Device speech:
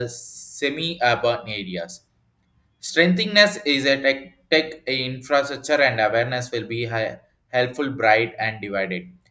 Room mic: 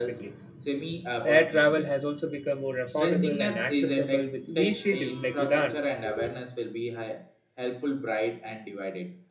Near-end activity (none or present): present